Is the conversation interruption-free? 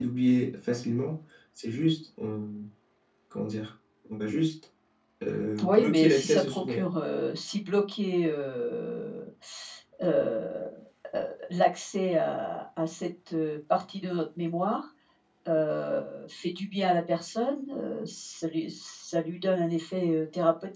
No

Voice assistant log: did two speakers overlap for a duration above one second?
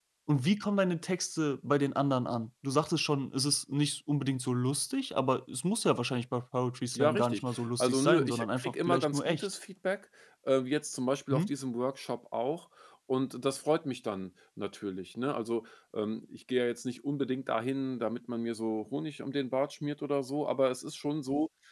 Yes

